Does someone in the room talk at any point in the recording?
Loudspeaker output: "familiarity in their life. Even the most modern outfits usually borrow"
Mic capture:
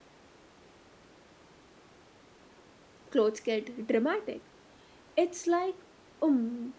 Yes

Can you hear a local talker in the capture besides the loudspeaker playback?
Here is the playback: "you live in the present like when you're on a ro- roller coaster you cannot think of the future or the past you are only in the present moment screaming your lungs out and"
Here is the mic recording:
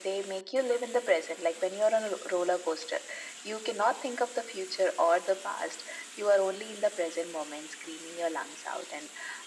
No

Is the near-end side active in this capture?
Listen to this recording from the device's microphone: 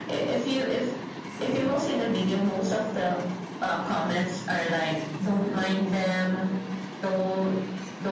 No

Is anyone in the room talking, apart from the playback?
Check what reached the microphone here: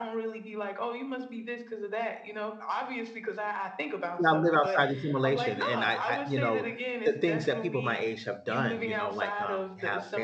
Yes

